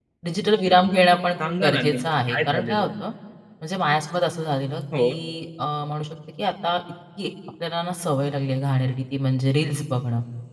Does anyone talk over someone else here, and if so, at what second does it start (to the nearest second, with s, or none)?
1 s